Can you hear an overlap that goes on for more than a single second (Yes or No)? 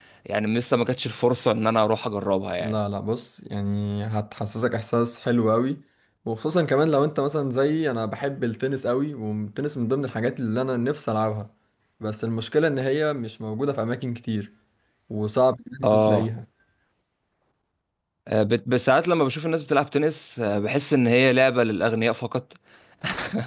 No